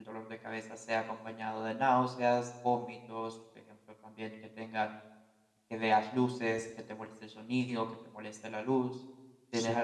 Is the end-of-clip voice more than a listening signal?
Yes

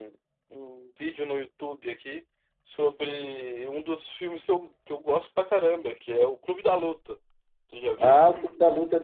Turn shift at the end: Yes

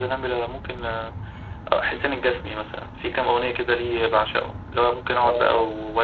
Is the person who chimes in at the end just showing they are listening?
Yes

